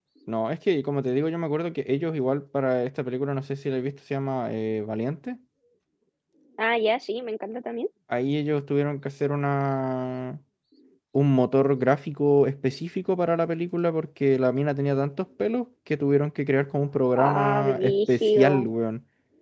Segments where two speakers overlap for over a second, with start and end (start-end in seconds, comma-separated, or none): 17.1-18.7